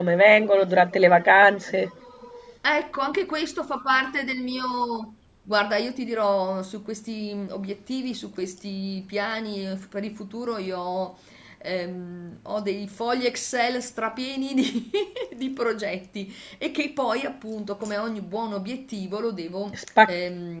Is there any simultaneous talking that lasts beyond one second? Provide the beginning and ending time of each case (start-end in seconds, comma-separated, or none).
none